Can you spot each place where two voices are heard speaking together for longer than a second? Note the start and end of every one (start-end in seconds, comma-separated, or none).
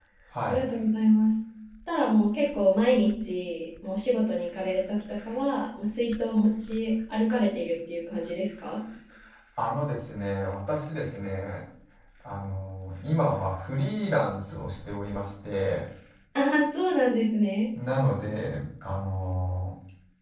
none